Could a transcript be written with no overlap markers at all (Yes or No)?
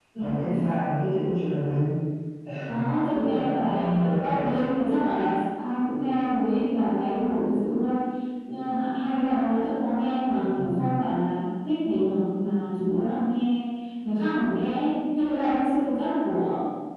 No